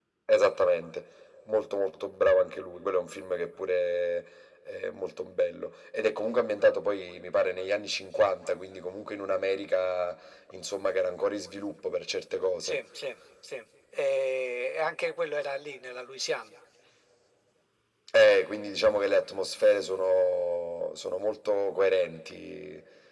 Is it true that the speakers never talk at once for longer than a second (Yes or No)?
Yes